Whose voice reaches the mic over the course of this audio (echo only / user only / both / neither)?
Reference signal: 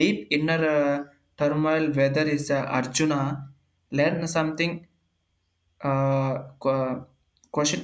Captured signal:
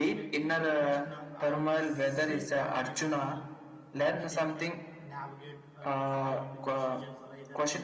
both